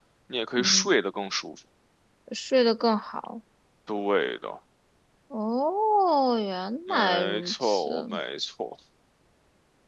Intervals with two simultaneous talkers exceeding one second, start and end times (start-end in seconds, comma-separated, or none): 6.9-8.2